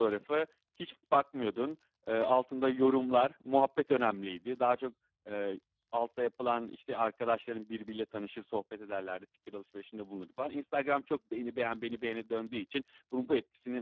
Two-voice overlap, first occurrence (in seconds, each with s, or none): none